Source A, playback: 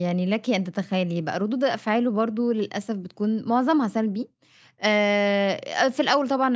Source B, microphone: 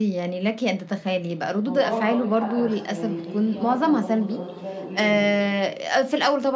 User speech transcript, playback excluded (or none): هو طبعًا أنتِ عندِك حق، بس يعني خلّيني أعرف هو برضه بيبقى رد فعله ايه لمّا بت